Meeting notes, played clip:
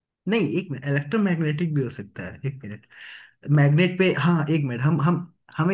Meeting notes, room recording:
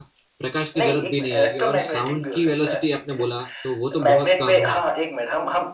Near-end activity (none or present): present